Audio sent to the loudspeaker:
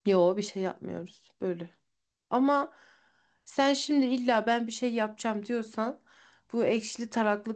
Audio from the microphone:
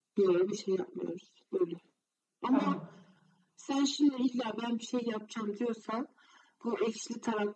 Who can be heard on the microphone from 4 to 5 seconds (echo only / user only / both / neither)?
echo only